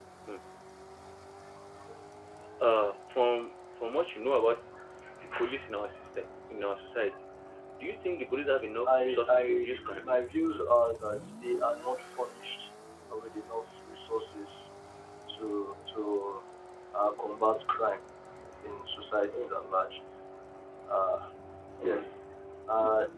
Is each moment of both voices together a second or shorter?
No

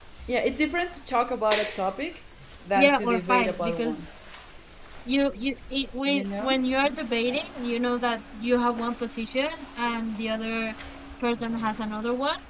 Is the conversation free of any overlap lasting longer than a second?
No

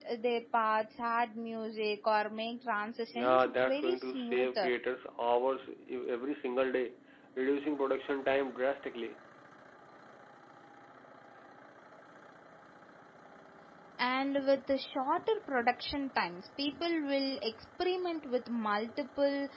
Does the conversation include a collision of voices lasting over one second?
Yes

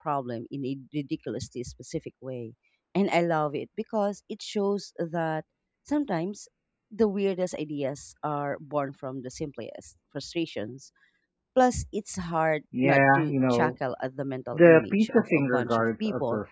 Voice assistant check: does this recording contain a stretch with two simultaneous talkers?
Yes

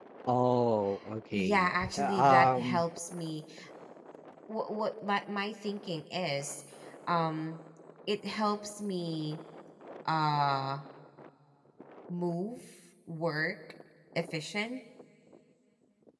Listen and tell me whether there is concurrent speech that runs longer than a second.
Yes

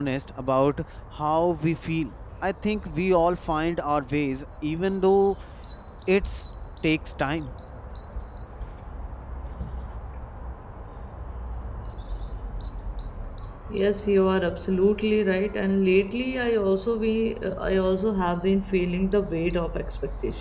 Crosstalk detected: No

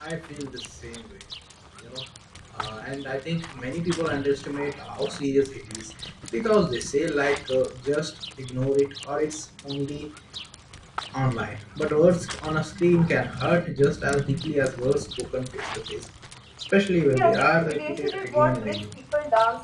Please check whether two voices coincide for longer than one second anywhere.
Yes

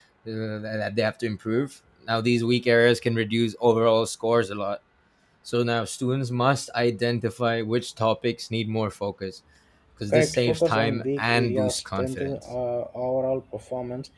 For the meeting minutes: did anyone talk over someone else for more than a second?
Yes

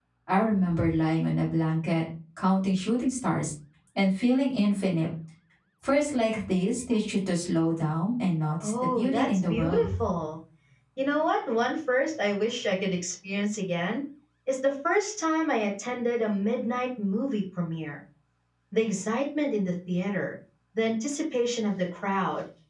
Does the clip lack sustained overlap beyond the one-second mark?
No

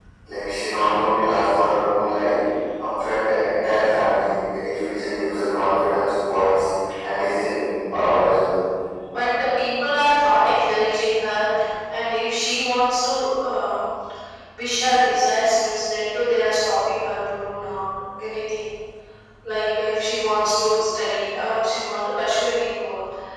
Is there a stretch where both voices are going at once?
No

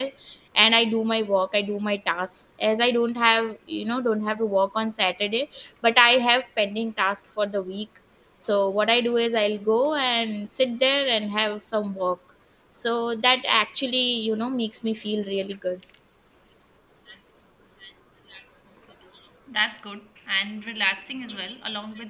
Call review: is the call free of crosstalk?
Yes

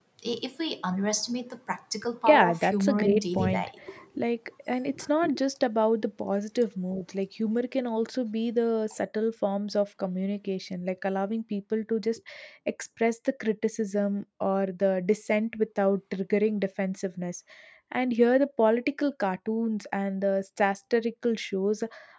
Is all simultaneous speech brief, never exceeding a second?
No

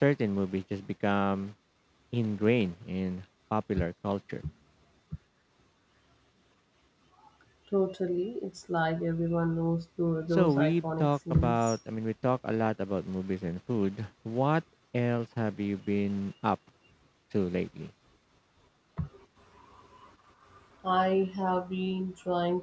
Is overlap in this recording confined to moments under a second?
No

